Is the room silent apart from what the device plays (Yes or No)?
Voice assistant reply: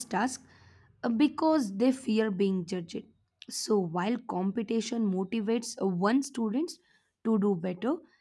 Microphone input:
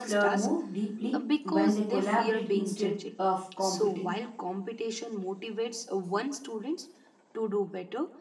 No